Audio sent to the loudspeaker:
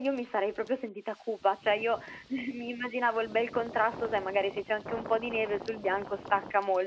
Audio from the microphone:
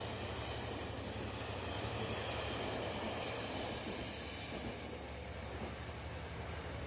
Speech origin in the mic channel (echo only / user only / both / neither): neither